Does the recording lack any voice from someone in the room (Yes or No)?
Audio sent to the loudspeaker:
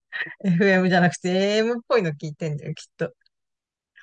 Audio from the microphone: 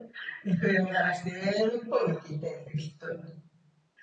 Yes